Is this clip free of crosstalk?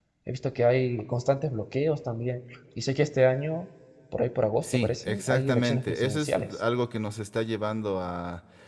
No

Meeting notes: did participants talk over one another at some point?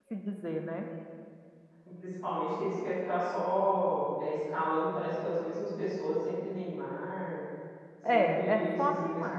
Yes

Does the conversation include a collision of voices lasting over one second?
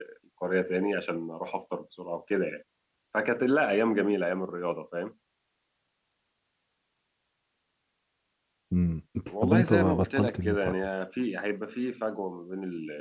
Yes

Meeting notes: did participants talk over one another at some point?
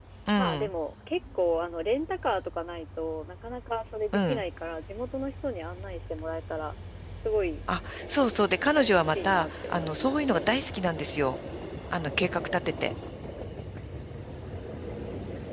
Yes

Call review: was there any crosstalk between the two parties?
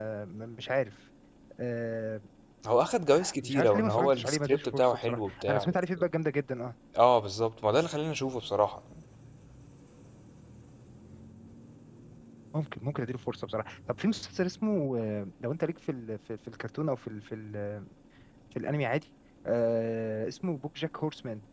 Yes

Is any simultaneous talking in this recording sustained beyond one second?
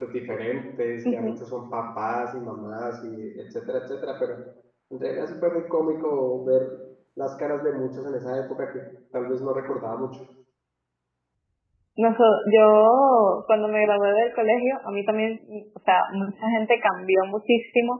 No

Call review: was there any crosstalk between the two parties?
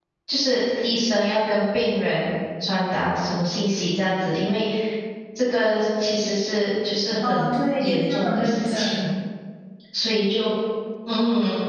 Yes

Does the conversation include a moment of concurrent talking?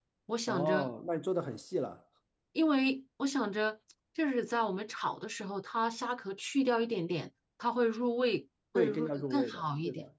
Yes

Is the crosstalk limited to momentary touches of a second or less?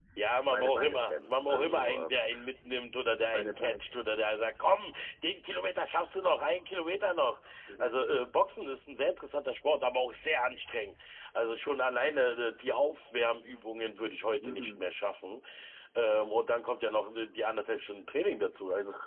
No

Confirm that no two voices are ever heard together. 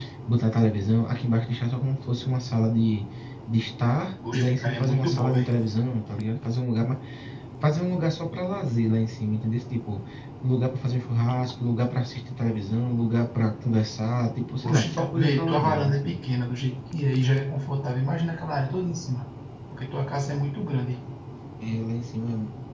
No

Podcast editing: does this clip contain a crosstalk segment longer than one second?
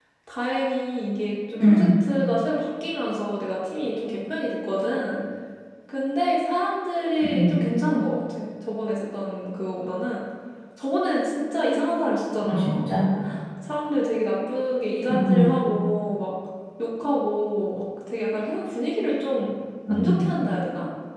No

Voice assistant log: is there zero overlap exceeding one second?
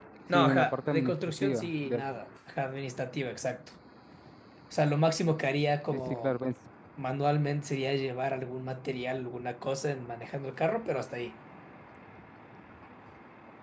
No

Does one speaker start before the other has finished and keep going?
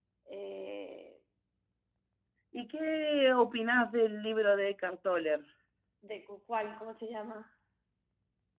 No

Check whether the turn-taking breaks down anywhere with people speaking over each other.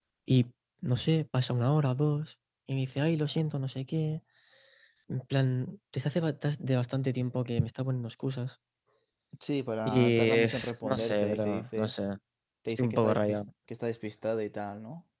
Yes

